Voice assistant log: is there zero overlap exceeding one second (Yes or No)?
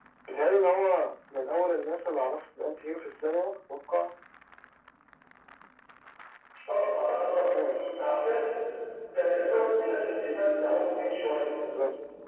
Yes